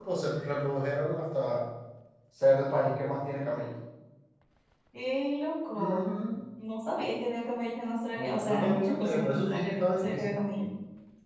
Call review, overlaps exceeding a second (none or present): present